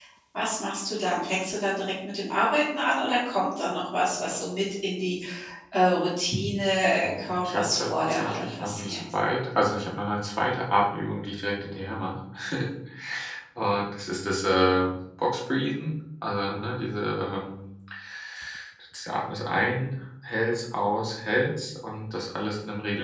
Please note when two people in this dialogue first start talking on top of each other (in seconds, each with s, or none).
6.9 s